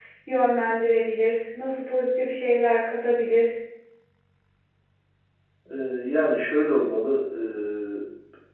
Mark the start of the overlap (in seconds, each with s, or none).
none